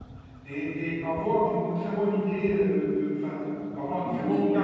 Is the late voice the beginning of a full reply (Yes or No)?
Yes